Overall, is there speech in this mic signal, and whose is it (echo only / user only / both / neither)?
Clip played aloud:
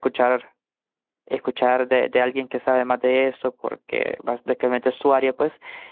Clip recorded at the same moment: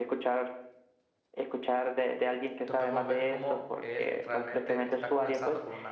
both